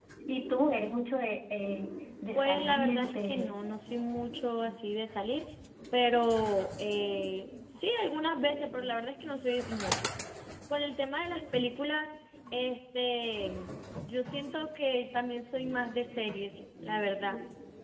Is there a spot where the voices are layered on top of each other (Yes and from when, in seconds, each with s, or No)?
Yes, from 2.3 s